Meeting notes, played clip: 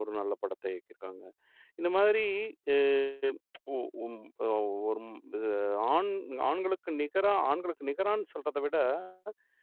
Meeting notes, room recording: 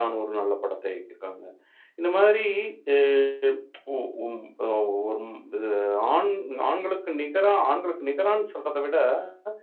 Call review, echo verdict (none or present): present